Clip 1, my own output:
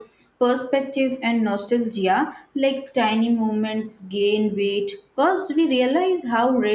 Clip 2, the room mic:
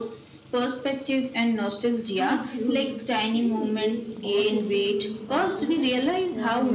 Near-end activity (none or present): present